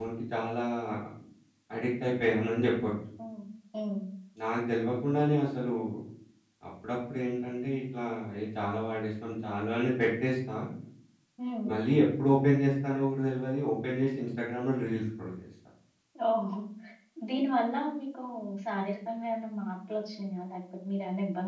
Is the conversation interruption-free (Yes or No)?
Yes